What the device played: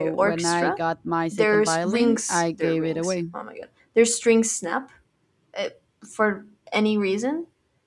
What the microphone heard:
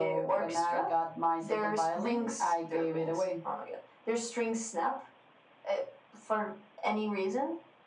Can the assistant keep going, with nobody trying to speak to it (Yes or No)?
Yes